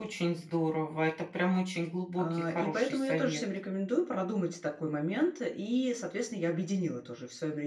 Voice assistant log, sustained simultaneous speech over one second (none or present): present